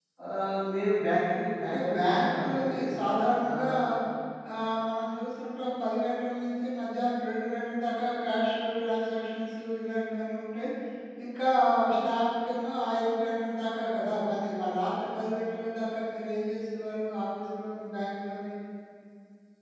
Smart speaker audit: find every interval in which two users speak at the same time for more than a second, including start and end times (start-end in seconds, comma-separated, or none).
1.6-2.8